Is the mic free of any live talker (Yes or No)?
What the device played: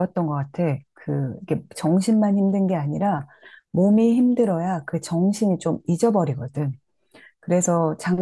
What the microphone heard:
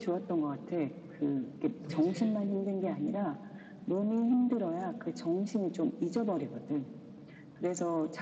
No